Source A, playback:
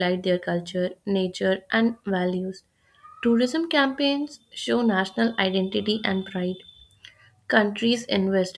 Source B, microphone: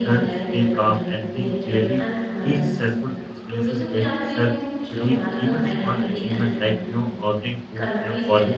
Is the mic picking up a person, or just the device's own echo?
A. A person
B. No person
A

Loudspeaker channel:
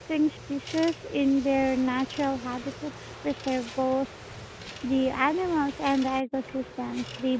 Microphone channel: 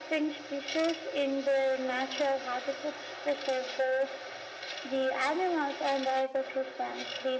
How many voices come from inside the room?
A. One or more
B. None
B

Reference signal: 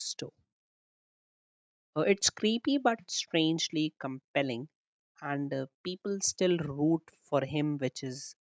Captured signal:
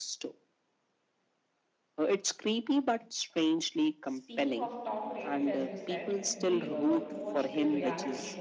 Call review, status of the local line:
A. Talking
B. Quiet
A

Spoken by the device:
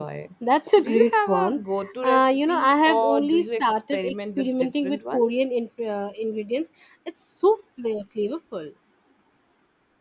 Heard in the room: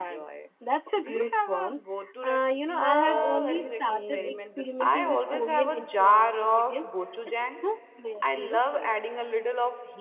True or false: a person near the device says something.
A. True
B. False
A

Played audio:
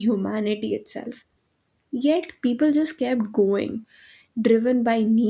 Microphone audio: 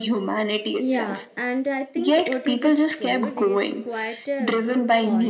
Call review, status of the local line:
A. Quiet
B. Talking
B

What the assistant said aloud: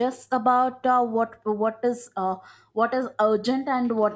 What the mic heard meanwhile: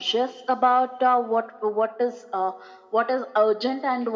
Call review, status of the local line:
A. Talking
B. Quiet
B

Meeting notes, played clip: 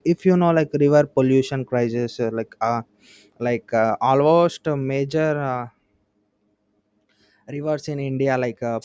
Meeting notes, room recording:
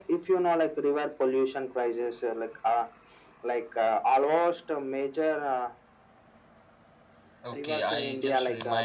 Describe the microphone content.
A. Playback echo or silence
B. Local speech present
B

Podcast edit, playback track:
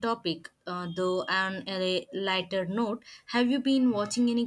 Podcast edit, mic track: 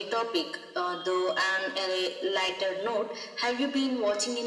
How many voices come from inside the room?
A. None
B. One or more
A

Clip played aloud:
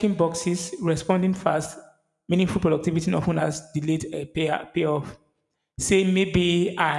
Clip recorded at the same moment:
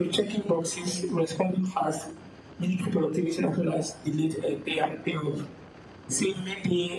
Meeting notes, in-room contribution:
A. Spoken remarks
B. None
B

